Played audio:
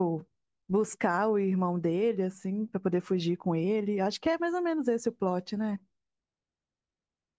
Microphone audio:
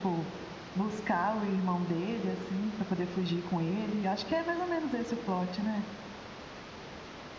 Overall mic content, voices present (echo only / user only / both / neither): echo only